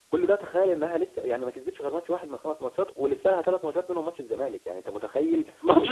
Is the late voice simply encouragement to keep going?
No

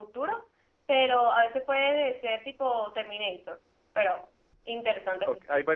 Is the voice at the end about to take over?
Yes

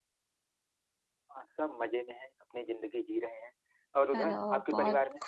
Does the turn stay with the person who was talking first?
No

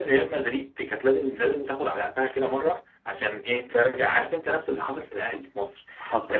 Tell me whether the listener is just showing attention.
Yes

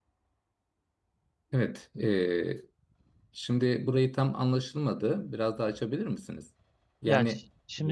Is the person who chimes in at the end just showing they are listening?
No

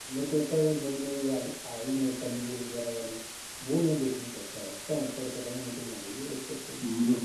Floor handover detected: Yes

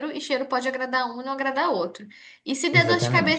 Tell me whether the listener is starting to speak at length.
No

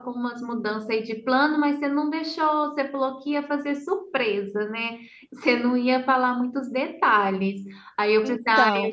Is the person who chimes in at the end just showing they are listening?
Yes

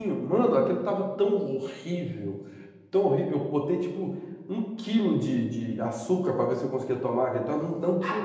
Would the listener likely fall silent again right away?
No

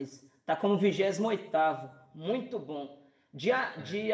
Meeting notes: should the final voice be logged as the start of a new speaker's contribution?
No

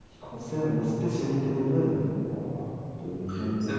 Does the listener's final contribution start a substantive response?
Yes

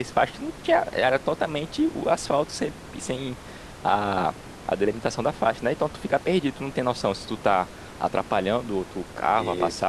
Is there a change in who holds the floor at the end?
No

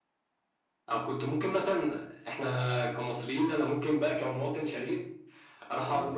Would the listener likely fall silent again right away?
Yes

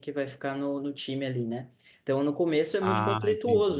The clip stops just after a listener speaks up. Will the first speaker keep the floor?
Yes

